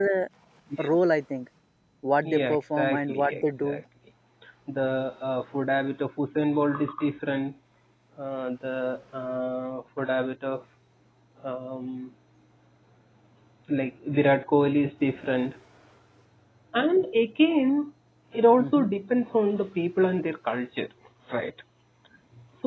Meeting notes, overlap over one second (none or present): present